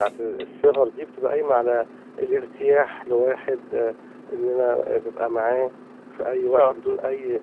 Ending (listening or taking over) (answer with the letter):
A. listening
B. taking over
A